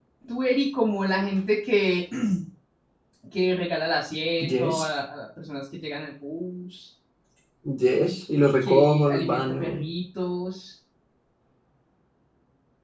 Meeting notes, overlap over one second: present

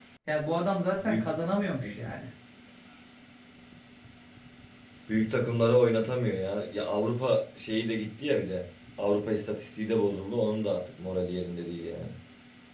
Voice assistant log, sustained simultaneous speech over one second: none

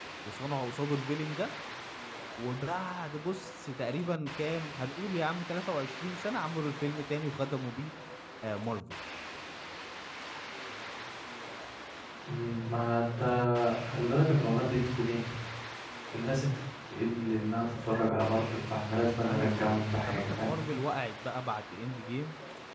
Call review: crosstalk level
present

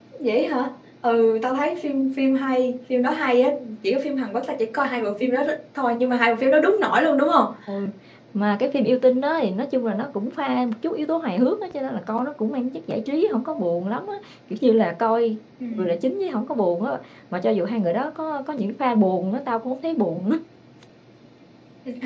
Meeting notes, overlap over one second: none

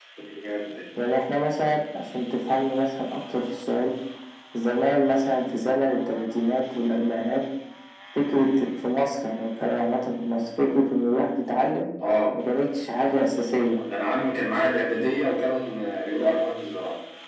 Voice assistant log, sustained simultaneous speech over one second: none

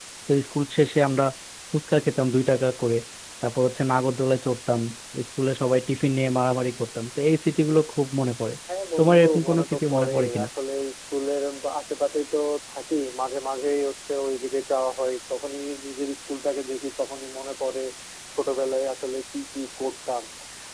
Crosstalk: present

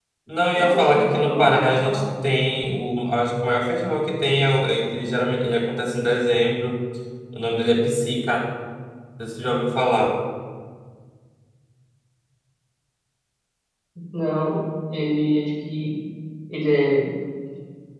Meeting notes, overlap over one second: present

